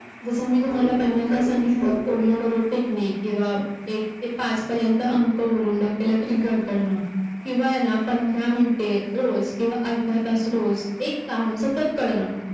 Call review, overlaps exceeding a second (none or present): present